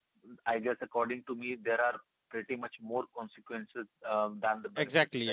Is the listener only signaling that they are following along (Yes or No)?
No